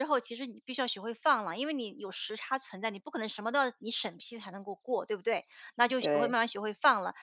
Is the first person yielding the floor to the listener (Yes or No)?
No